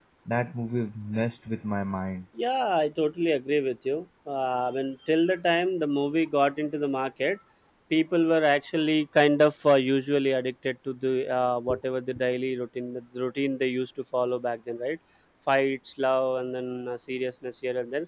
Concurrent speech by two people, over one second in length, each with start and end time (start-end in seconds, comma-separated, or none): none